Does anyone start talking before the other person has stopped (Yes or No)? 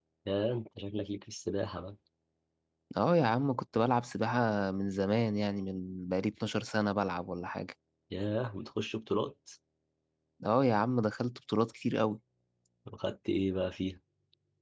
No